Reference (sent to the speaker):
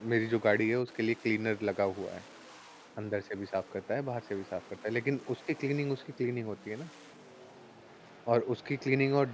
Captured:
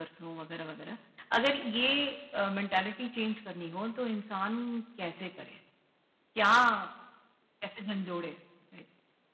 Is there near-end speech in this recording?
Yes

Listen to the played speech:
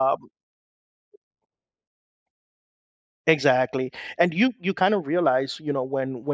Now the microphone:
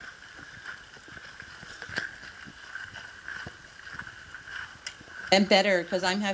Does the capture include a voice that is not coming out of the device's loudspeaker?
Yes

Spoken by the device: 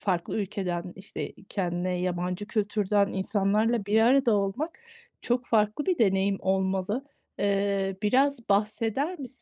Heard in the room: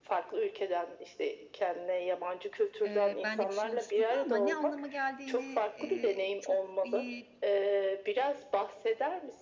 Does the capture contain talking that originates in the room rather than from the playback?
Yes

